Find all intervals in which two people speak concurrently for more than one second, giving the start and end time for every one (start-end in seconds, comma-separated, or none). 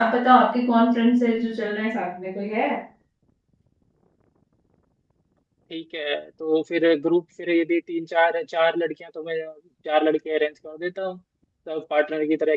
none